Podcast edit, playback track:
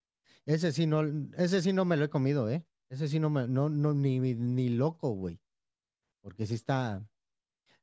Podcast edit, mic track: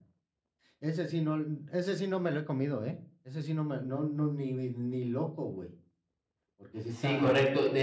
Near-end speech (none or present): present